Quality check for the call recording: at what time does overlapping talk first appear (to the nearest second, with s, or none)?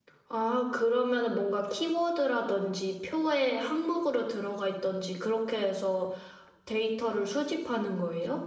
none